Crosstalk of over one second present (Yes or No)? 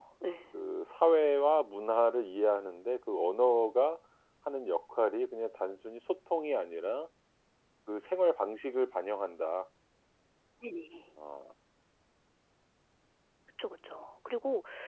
No